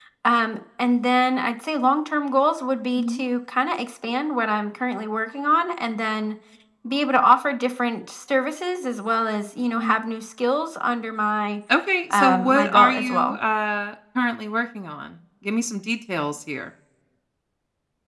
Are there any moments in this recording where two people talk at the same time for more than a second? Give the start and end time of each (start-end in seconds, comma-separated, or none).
12.1-13.4